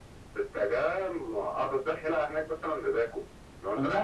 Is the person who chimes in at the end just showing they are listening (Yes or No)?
No